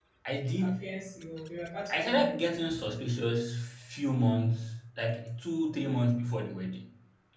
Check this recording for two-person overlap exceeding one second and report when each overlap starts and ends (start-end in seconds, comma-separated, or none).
none